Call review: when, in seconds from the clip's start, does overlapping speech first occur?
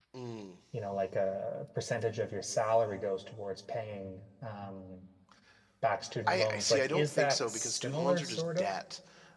6 s

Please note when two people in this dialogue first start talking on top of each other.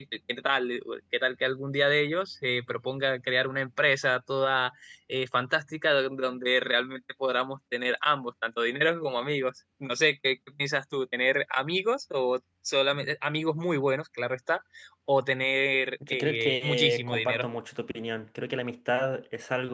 16 s

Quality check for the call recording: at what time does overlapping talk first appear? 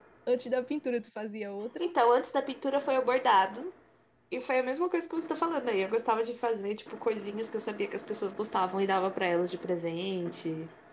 none

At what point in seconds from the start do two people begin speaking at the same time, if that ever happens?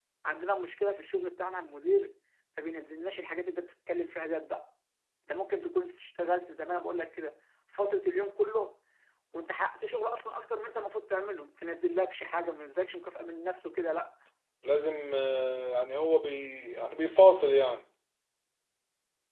none

